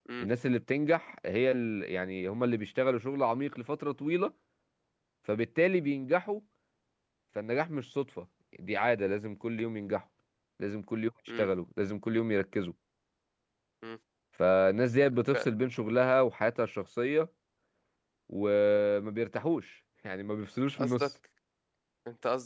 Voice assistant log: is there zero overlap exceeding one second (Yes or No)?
Yes